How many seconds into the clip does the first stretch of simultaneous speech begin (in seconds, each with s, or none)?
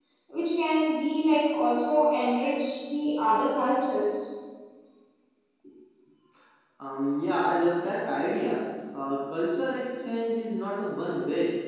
none